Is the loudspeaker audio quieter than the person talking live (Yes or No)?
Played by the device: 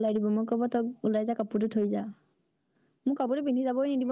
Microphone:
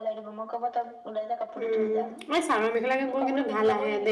Yes